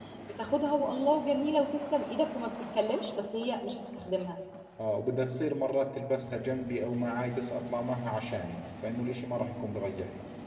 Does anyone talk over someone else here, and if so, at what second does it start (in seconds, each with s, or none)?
none